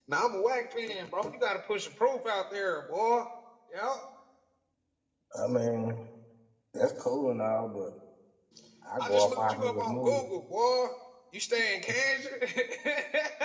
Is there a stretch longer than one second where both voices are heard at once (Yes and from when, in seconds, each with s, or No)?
Yes, from 9.0 s